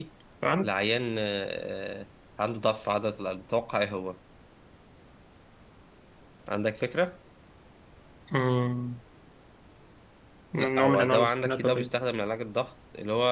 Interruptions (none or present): present